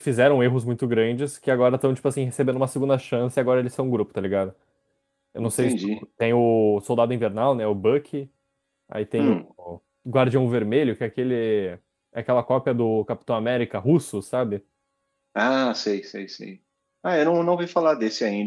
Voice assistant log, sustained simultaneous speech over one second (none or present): none